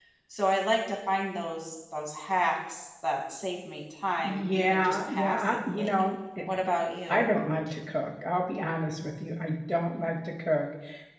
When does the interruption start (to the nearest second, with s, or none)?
4 s